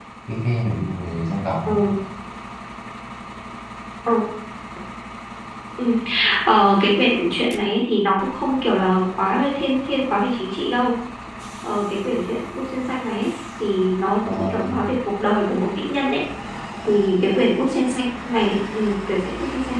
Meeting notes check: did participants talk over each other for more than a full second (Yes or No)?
No